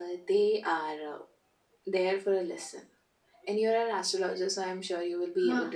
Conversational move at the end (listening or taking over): listening